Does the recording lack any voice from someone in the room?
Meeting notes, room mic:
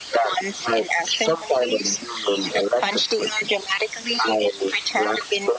Yes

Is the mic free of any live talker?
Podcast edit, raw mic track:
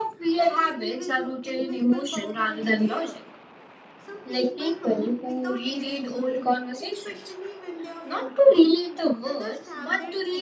No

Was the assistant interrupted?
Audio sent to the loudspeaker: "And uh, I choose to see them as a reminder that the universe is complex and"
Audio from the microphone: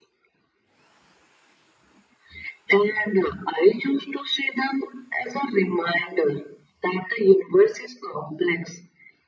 No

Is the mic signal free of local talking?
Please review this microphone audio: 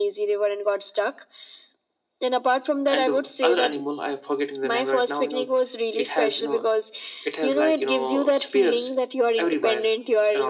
No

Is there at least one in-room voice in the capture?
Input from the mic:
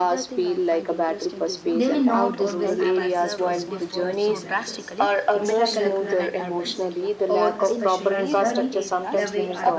Yes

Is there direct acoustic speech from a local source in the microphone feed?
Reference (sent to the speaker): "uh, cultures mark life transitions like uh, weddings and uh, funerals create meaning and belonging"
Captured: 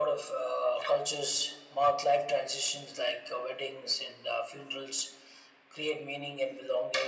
No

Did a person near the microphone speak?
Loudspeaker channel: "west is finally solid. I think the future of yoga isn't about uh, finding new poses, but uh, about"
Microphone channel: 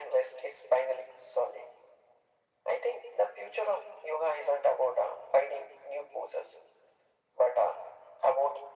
No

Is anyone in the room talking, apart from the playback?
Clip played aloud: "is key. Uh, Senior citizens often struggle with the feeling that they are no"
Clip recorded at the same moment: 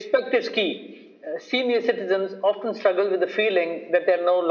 No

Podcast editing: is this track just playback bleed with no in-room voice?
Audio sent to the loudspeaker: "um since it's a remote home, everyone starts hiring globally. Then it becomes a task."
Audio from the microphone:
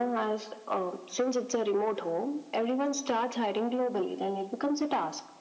Yes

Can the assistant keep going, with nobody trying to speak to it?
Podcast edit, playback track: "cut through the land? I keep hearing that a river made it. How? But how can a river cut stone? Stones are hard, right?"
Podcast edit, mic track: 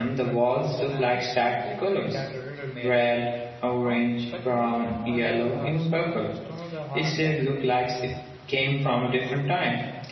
No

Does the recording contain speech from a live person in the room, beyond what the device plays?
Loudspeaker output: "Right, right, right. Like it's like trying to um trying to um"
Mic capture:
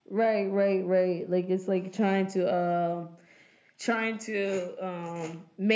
No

